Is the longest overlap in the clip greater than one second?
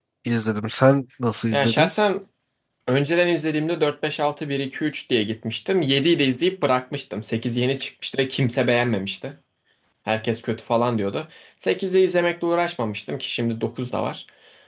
No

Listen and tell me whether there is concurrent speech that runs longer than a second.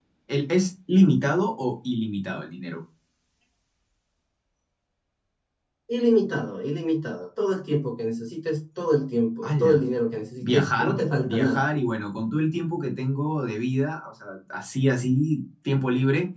Yes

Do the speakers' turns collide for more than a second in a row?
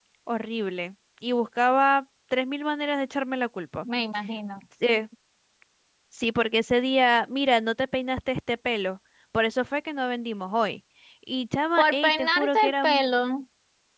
Yes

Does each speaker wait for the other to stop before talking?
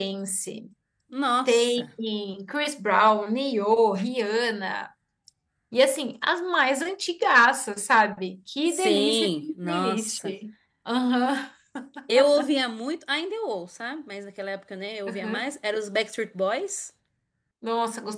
No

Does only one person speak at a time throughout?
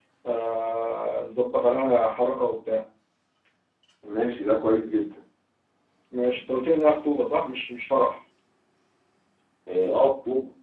Yes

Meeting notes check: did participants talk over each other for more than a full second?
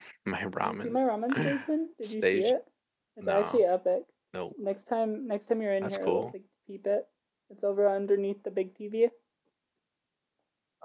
No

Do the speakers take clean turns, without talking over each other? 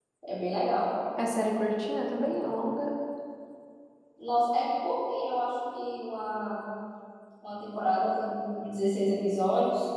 Yes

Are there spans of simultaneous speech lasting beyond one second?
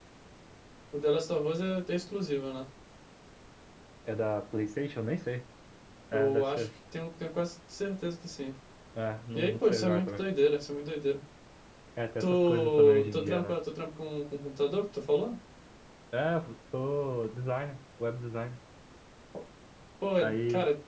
Yes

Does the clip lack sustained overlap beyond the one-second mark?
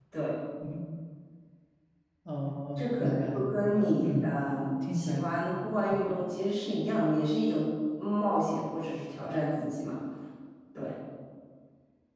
No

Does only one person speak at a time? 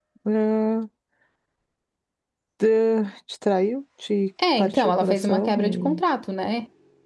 No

